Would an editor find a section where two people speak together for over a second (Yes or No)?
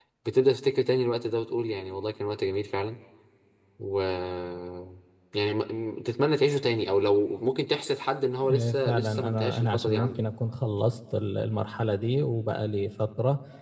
Yes